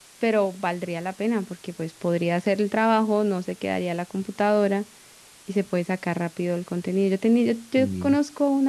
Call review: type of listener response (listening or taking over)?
listening